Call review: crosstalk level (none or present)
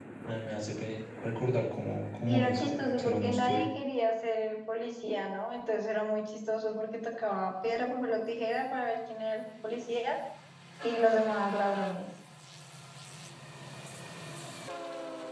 present